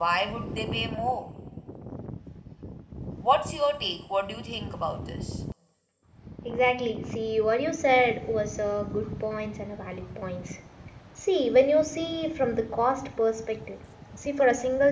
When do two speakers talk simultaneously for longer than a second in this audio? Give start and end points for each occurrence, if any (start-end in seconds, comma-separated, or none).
none